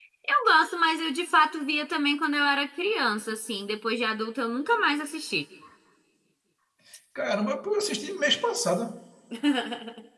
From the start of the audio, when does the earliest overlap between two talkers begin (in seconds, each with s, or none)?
none